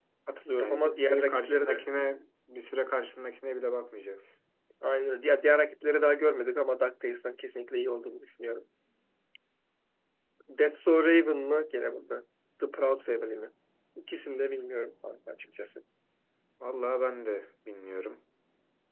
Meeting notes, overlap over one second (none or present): present